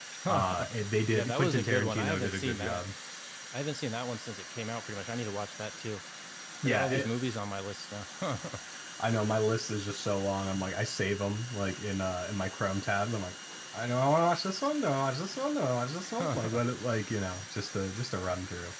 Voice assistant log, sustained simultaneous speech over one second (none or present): present